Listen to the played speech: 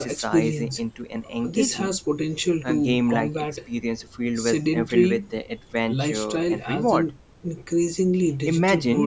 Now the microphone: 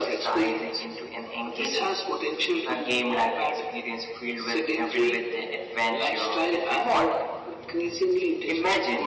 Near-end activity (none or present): none